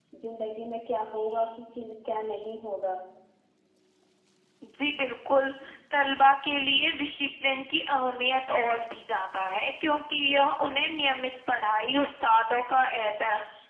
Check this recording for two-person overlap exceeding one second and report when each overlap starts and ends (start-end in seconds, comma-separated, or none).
none